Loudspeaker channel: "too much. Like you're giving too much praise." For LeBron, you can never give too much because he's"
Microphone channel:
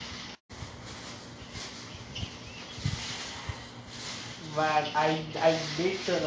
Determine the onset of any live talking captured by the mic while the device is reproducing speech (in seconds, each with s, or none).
4.4 s